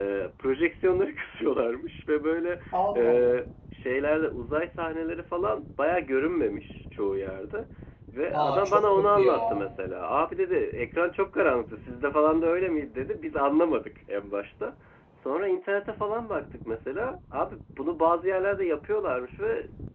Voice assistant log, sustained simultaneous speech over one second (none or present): present